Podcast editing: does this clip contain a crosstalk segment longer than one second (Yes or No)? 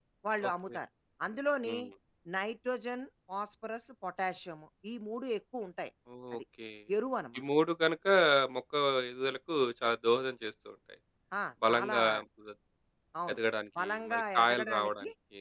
Yes